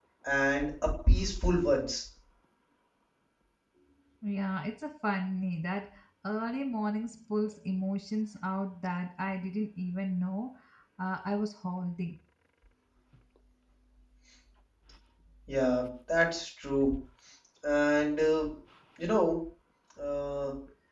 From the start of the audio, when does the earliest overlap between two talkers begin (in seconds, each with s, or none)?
none